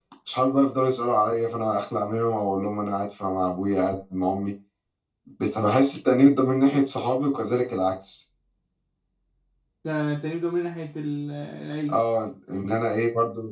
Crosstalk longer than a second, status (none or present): none